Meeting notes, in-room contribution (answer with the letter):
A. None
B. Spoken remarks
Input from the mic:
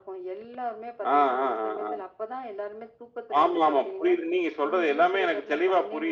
A